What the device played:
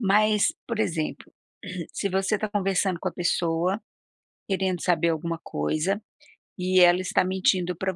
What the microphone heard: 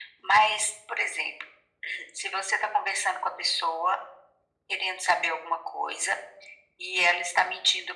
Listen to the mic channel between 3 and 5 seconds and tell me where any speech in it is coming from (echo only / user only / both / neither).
echo only